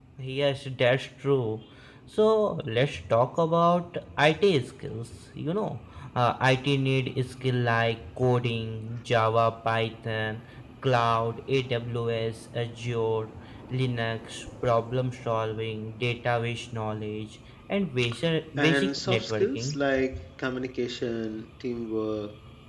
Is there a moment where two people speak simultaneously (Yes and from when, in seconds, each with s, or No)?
Yes, from 18.6 s